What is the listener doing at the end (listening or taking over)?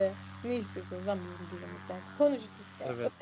taking over